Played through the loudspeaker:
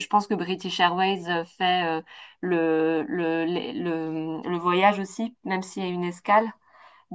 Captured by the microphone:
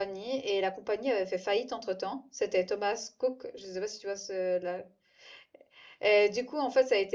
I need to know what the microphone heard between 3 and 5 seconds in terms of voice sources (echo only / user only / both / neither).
user only